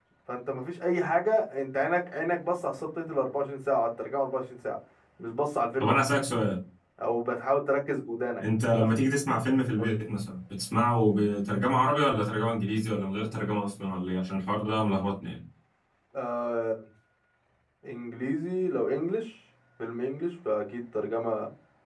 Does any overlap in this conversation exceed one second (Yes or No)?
No